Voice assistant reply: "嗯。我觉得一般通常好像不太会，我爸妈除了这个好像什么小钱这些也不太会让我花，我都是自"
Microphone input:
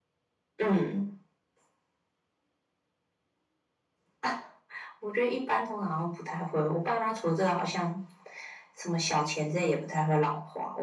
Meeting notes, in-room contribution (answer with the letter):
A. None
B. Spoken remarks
A